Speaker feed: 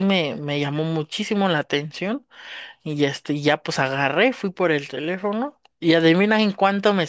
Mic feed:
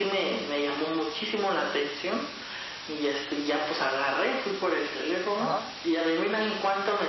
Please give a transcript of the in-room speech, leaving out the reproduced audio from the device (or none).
Ajá.